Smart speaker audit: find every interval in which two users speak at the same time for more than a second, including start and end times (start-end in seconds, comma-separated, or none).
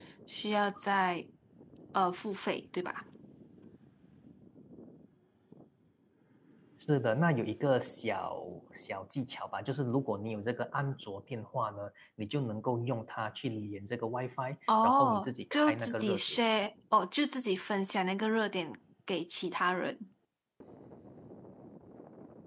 14.8-16.4